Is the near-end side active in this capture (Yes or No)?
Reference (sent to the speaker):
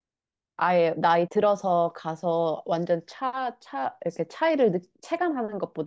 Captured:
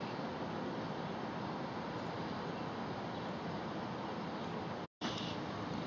No